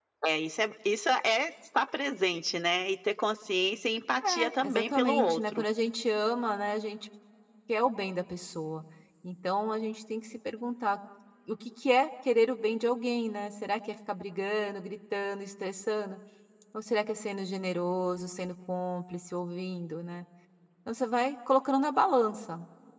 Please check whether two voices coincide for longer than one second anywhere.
Yes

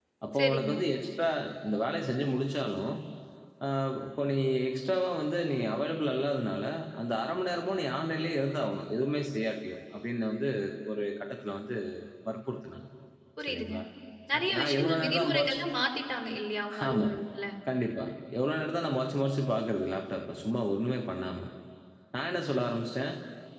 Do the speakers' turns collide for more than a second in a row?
Yes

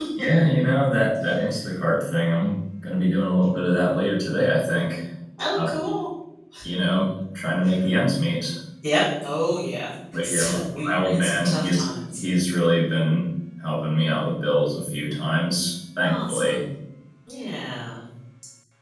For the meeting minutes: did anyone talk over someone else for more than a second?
Yes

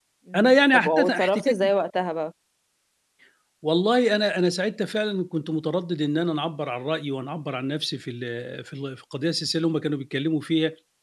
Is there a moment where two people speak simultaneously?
Yes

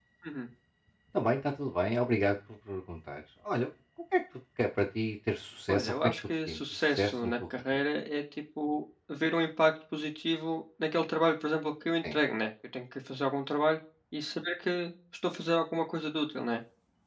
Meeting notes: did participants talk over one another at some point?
Yes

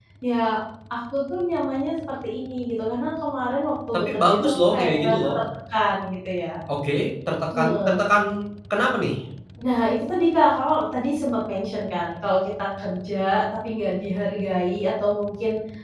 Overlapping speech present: Yes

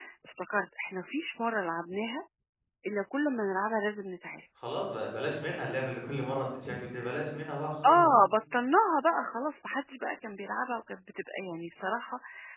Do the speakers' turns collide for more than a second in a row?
No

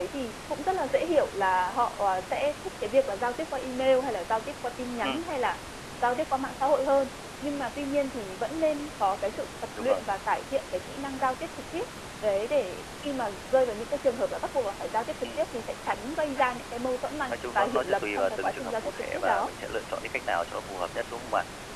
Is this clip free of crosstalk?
No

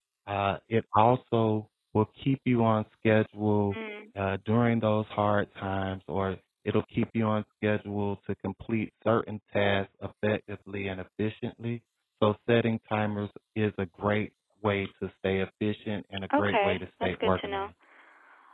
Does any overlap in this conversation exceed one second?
Yes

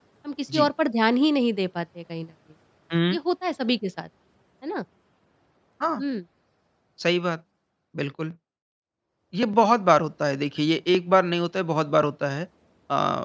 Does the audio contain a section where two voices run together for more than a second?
No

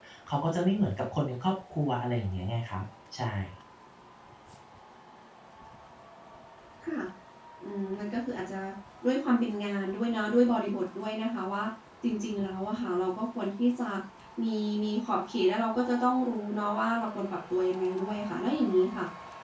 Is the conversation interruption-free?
Yes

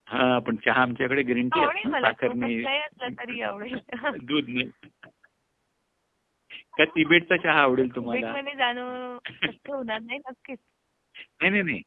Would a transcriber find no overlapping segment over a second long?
No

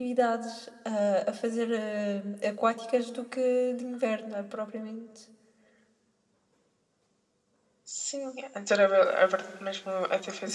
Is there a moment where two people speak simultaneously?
No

